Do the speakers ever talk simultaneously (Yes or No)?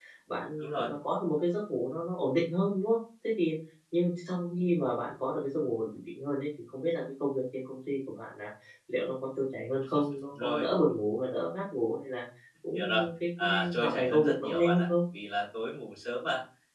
Yes